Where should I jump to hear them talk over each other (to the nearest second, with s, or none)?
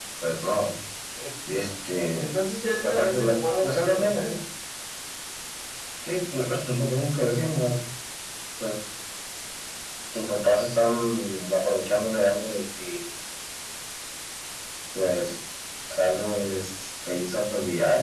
3 s